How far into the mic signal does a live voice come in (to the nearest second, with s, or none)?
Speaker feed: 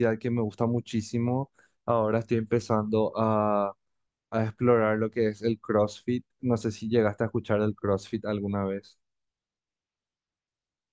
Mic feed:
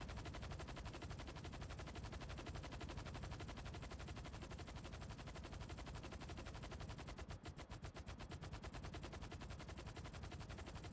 none